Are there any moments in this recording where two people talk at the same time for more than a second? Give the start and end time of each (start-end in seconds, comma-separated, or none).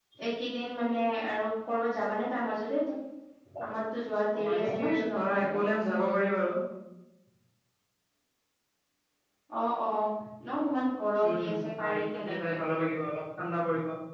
4.3-5.6, 11.3-12.6